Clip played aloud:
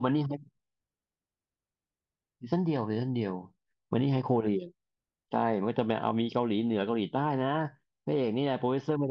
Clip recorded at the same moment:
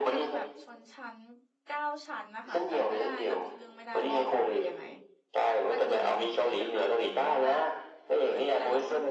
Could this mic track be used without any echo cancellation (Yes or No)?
No